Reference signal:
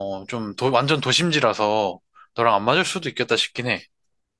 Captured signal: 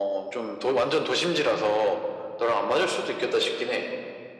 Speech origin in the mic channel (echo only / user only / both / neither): echo only